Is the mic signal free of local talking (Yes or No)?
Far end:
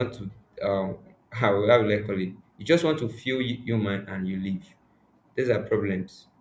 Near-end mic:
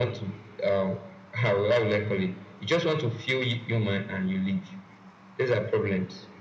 Yes